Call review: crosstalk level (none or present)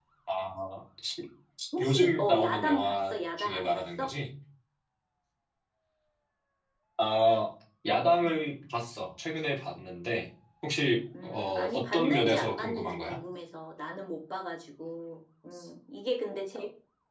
present